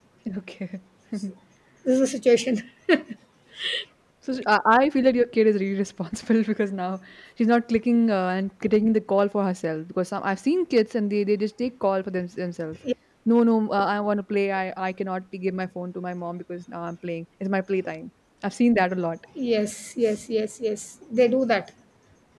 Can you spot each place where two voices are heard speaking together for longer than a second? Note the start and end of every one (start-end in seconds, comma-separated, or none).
none